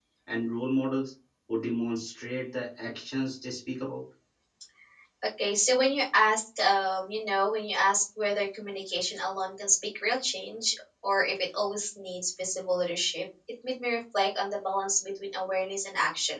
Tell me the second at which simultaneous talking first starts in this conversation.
none

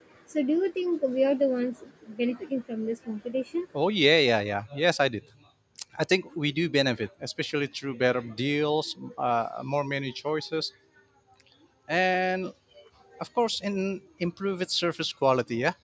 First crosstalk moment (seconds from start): none

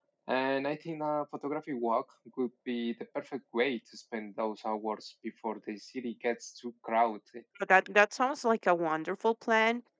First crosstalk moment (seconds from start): none

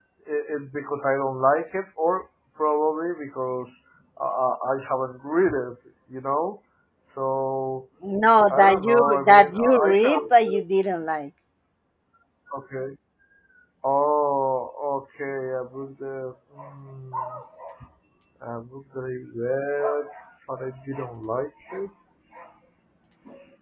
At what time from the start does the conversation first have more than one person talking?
8.5 s

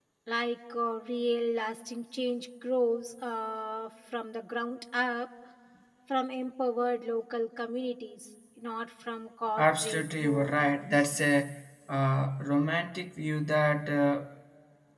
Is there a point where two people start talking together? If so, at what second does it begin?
9.6 s

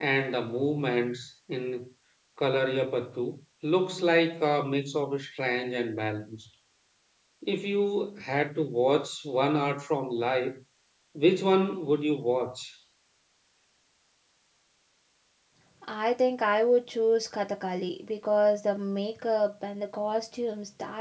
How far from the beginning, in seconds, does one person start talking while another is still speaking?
none

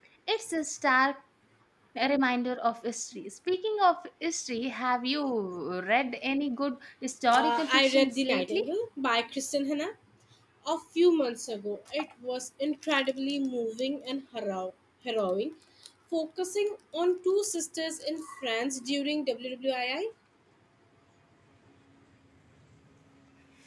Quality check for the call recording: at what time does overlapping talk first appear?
7.3 s

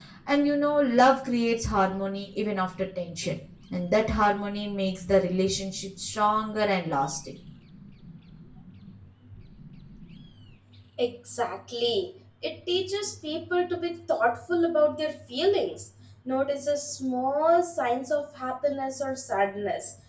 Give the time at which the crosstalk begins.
none

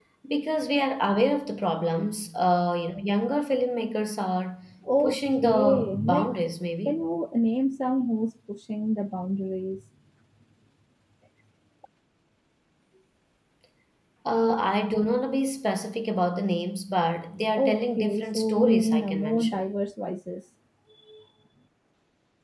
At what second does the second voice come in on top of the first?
5.0 s

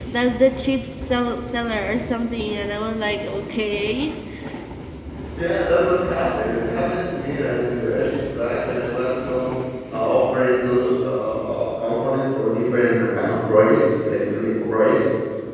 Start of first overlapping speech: none

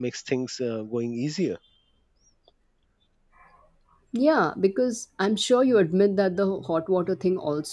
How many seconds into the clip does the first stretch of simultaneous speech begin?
none

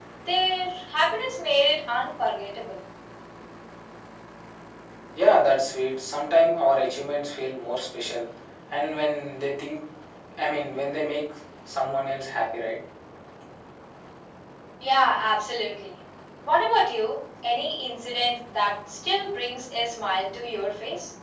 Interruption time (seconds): none

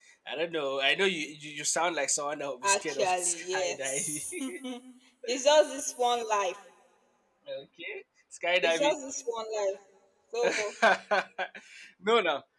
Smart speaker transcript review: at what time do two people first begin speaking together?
2.6 s

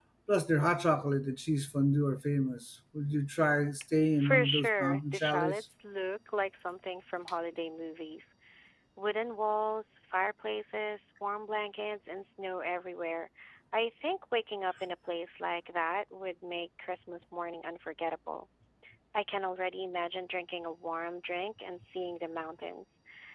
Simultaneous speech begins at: 4.1 s

